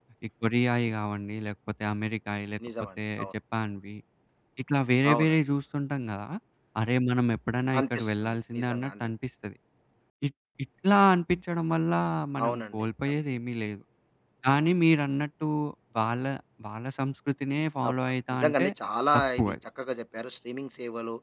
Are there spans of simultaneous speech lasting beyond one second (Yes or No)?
Yes